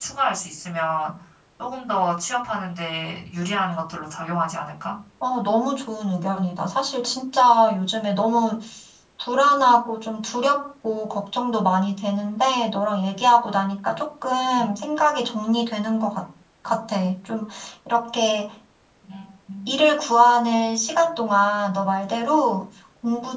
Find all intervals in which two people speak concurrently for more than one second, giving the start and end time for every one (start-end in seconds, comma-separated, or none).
none